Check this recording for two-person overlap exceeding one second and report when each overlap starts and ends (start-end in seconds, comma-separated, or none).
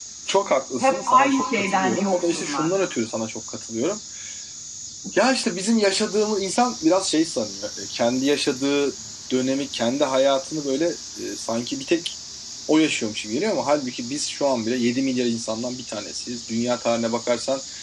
0.8-2.7